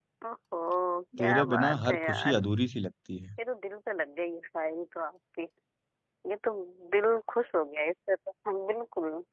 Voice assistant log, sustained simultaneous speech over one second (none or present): present